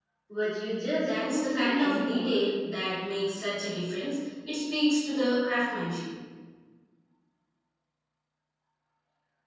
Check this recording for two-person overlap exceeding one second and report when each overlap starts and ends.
1.0-2.3

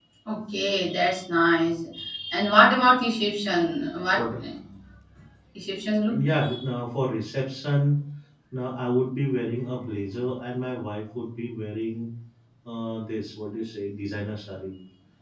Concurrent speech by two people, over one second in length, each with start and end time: none

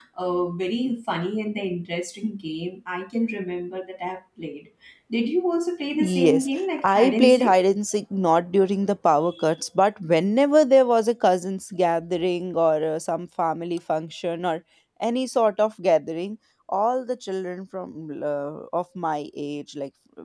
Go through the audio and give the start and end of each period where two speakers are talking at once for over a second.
6.0-7.6

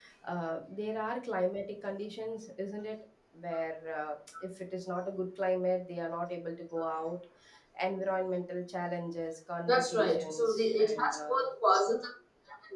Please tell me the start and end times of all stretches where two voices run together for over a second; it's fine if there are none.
9.7-11.4

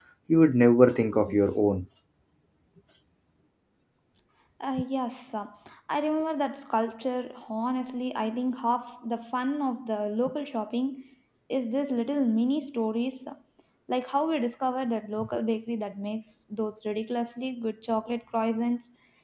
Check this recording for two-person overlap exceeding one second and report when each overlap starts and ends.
none

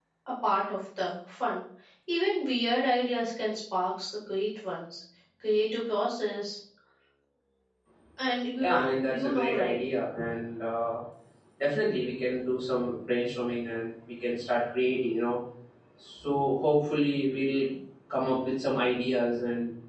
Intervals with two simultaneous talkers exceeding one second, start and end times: 8.6-9.8

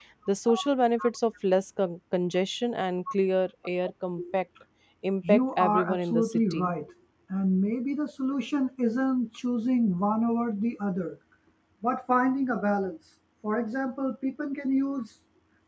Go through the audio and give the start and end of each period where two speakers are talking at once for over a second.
5.3-6.7

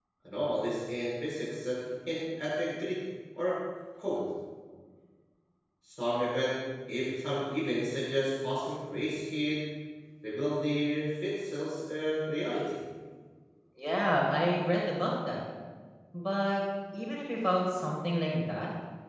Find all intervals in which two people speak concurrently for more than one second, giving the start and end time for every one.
none

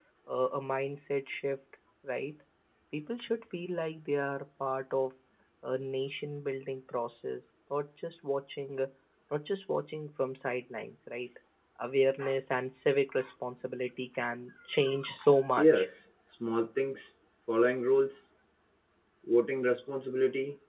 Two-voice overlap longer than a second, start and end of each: none

